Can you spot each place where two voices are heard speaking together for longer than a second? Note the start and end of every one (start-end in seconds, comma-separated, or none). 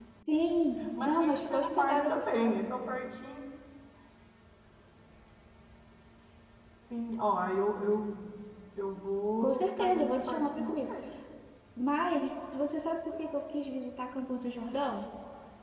1.0-2.7, 9.4-10.9